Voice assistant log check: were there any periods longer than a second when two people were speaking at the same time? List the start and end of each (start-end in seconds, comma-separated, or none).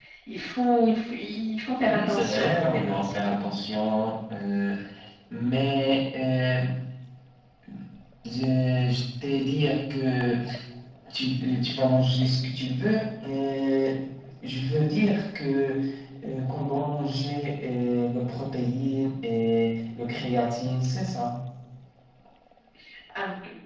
1.8-3.4